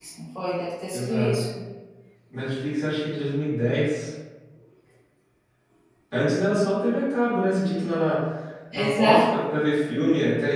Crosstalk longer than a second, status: none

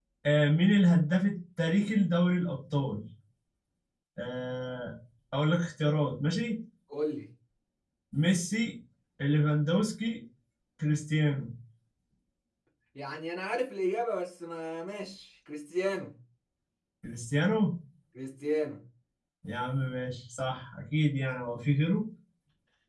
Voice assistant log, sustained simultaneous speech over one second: none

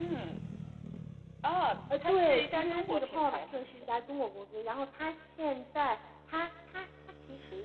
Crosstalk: present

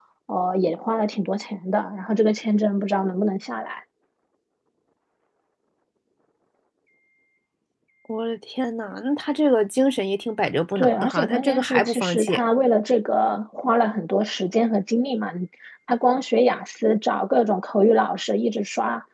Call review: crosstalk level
present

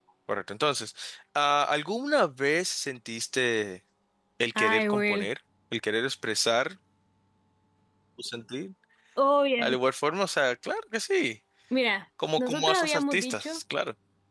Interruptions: present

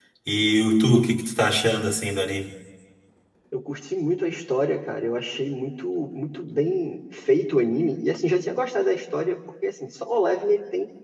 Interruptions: none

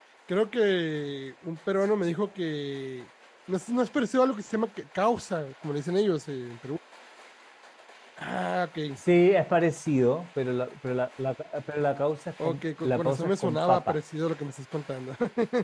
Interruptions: present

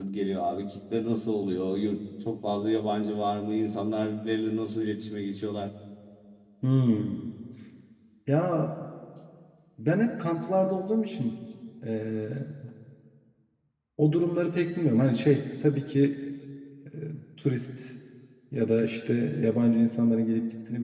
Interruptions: none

